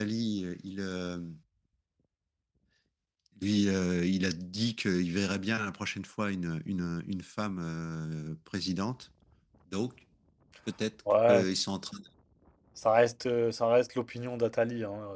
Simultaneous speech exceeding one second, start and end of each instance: none

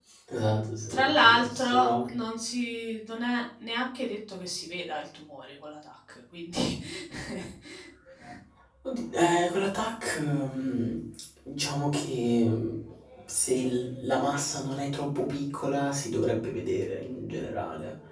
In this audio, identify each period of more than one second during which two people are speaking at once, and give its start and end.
0.5-2.1

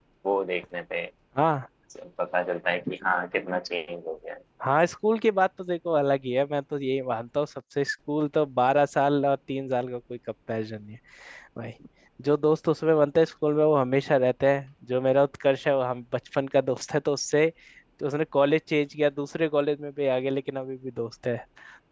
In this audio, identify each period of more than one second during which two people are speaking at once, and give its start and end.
none

